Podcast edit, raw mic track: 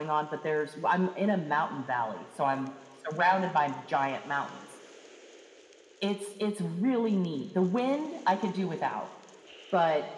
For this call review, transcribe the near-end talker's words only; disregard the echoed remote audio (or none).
none